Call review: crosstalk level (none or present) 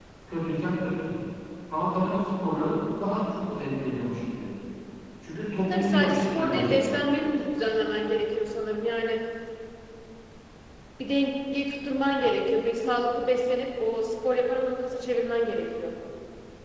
present